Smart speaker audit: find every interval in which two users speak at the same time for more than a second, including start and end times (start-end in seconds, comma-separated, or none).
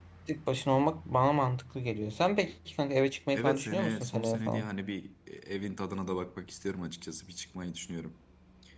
3.3-4.7